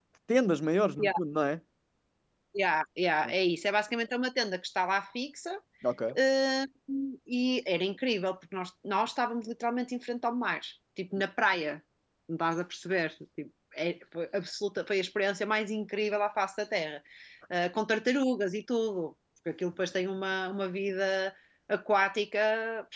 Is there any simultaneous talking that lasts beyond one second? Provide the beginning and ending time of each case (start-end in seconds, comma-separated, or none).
none